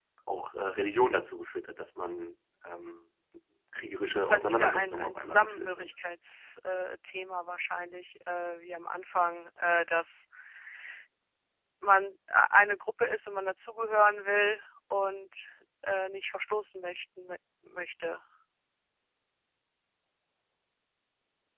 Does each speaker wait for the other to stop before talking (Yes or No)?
No